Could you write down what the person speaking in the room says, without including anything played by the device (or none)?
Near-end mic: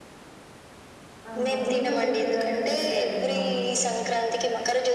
ఆహా పూర్ణం రొ రొట్టెలు అంటే తెలుస్తాయండీ మాకు